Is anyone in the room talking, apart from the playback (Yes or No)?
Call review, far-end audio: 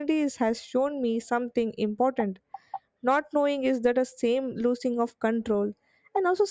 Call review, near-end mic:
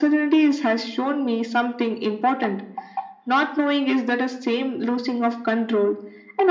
No